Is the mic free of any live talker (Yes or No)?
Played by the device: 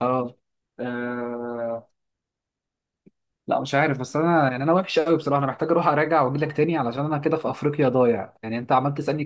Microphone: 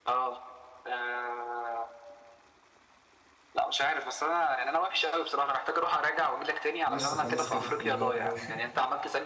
No